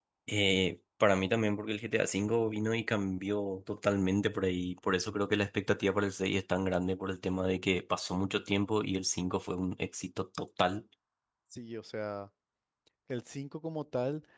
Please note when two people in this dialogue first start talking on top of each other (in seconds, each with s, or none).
none